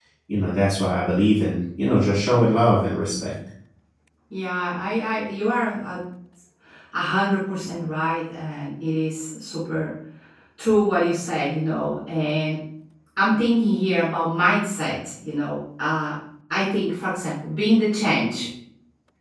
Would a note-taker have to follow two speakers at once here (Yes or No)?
No